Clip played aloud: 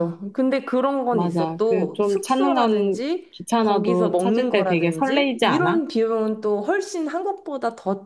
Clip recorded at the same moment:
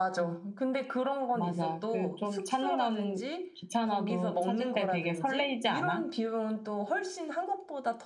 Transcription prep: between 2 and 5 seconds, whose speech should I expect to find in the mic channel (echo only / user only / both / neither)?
echo only